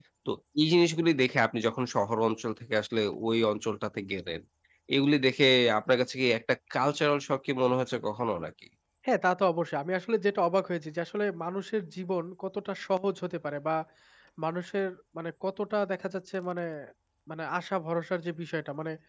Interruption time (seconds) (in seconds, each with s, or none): none